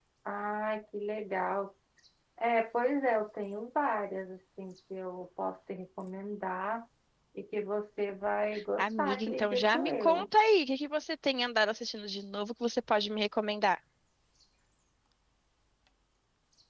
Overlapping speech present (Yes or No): Yes